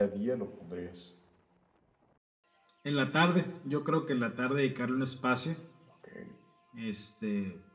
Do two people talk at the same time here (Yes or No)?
No